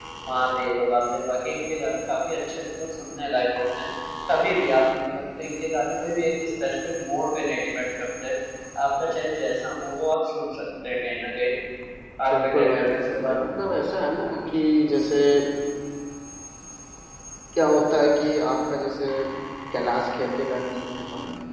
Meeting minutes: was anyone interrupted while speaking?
Yes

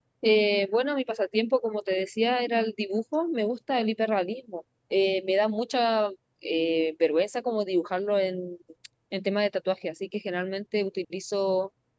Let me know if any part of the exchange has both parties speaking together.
No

